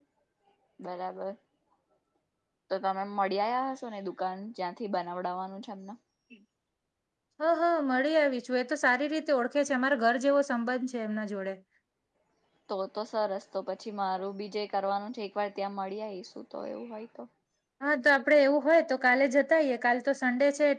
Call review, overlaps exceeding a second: none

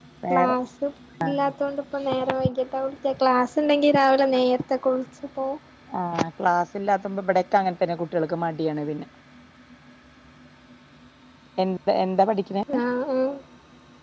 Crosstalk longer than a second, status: none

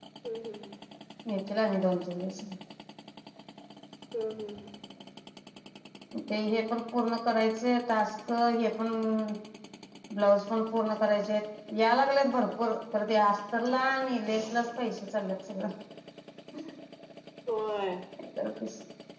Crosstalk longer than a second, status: none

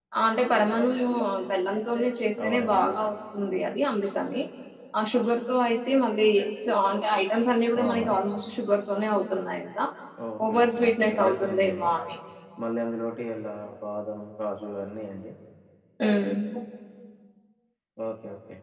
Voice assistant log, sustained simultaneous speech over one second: present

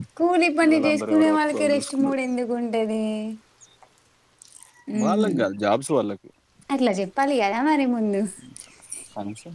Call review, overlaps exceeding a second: present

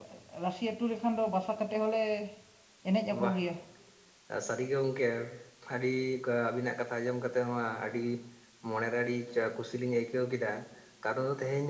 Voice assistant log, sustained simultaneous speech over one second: none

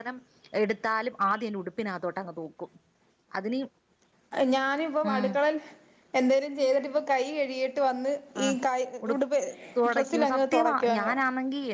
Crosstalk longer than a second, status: present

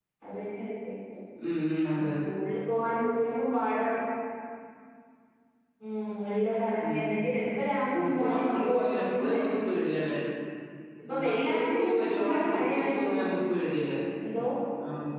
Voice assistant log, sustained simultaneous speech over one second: present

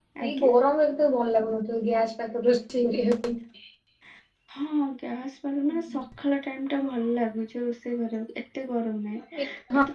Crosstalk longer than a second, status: none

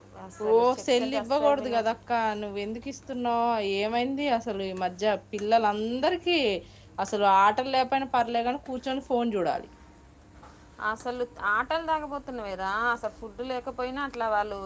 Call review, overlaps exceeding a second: present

